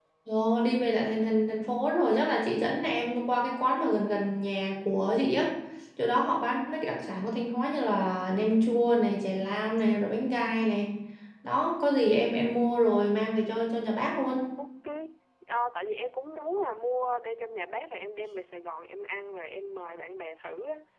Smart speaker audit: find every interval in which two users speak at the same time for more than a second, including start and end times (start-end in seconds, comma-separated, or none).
none